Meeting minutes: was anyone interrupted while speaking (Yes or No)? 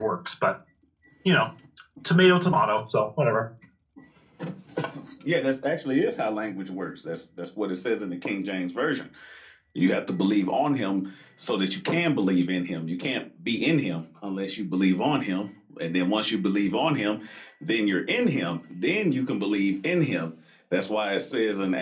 No